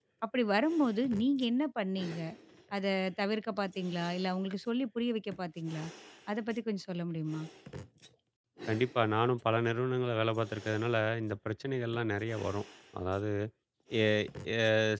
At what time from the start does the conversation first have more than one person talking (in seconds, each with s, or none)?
none